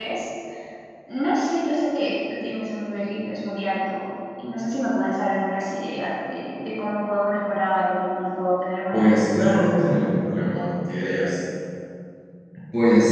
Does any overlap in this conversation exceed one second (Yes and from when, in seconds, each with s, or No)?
Yes, from 8.9 s